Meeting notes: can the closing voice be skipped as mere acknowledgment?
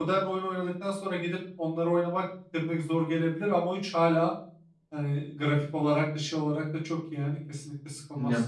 No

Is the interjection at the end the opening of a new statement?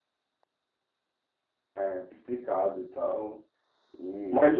Yes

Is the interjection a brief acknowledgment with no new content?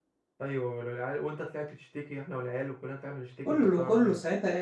No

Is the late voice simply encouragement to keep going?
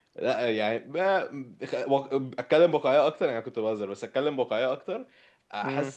Yes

